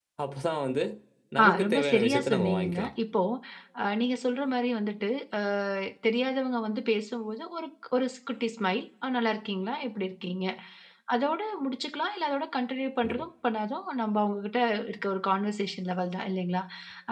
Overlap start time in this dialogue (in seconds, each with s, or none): 1.4 s